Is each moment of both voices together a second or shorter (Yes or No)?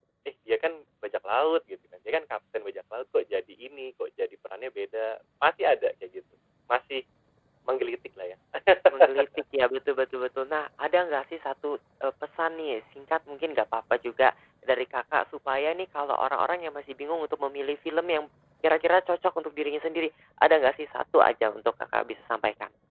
Yes